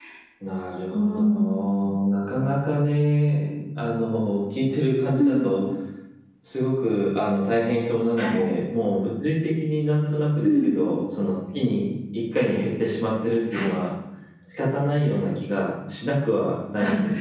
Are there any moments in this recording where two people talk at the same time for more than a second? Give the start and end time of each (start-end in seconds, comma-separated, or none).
none